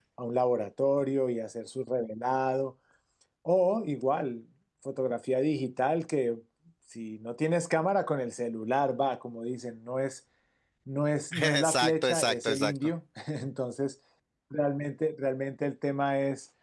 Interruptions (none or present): present